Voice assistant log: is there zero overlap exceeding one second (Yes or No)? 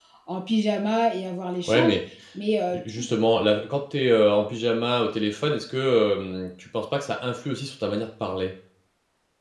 Yes